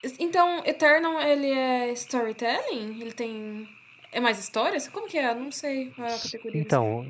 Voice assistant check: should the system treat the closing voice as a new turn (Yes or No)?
Yes